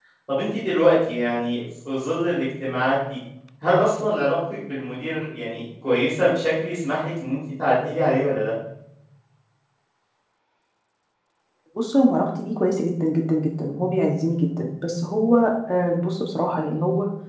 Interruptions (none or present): none